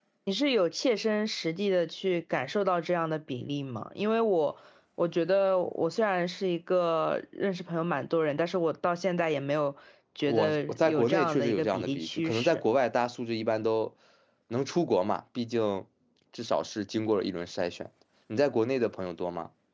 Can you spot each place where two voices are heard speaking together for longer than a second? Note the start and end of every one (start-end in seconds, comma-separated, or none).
10.2-12.6